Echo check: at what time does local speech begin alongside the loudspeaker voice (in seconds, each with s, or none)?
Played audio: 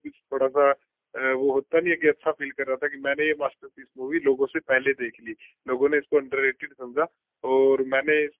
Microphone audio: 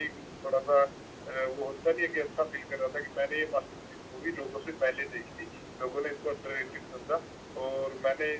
none